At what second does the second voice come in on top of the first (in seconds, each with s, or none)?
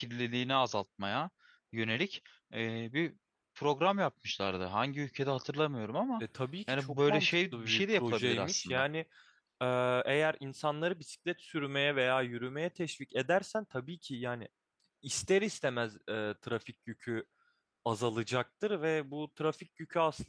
6.7 s